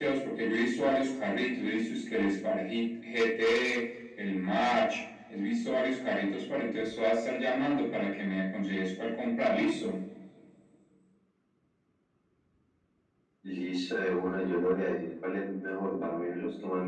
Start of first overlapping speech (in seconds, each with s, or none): none